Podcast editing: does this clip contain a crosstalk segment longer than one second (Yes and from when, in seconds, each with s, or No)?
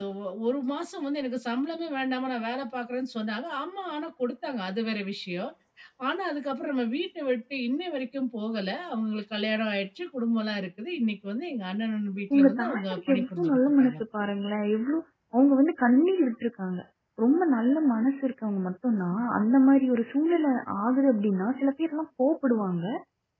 Yes, from 12.3 s